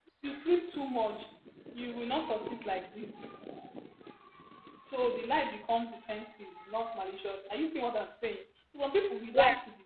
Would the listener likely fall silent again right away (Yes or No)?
Yes